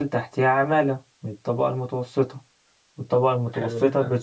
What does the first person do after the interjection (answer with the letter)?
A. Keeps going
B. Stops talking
A